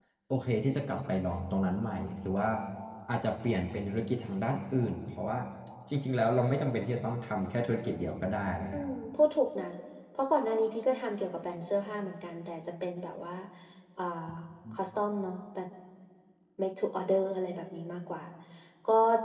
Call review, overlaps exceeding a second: none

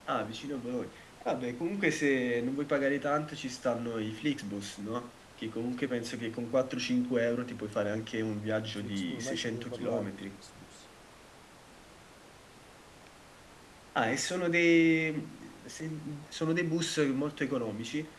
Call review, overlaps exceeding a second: present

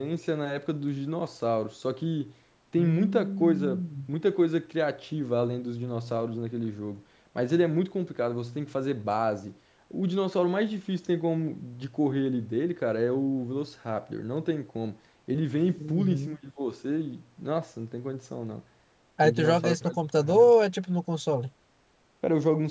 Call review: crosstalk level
present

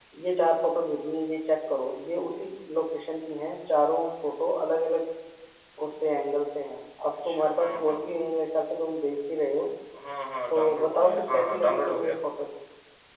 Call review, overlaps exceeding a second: present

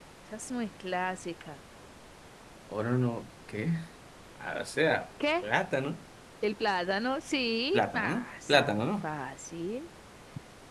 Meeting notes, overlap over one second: present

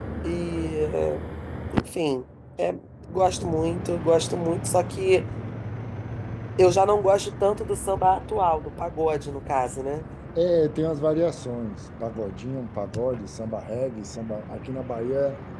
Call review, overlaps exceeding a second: none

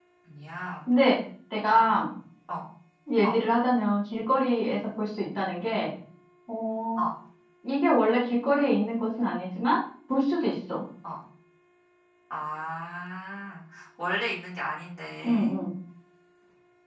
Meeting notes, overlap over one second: none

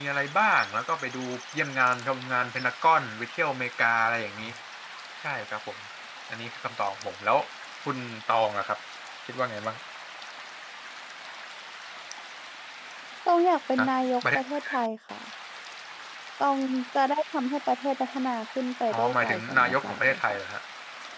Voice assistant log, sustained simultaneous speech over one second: present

